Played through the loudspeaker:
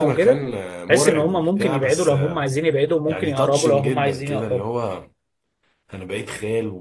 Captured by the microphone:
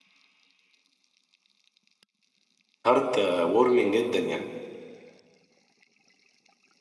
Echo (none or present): none